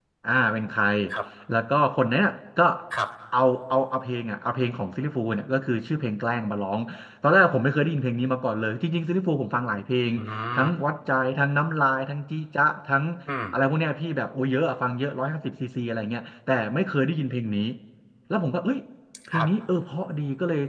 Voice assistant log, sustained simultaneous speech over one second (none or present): none